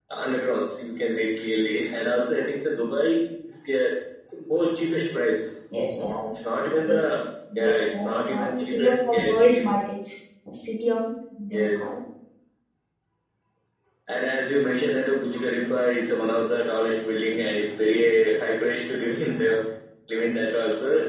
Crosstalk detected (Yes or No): Yes